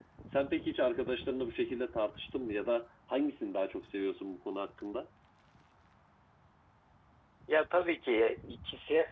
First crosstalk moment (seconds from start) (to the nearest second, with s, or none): none